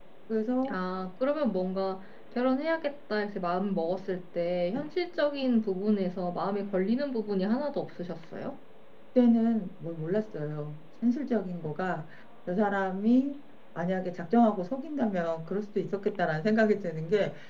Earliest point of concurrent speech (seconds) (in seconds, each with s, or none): none